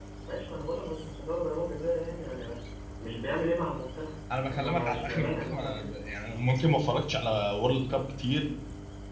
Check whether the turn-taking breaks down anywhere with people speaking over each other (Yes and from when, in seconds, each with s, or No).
Yes, from 4.3 s